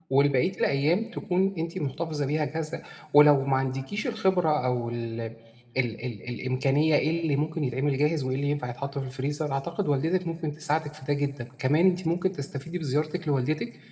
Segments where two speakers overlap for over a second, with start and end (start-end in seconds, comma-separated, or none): none